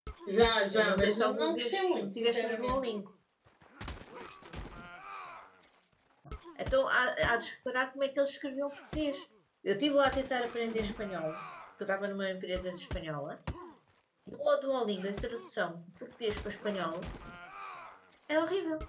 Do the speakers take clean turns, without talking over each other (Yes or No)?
No